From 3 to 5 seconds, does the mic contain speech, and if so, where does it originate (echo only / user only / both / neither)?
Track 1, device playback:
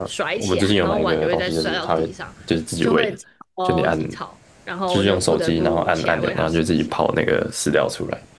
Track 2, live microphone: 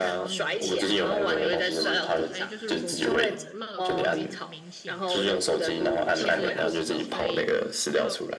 both